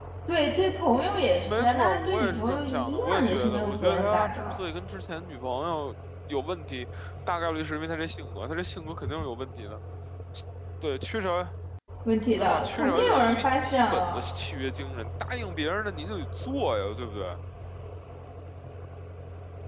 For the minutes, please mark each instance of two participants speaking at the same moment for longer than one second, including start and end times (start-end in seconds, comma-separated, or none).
1.4-4.6, 12.4-14.3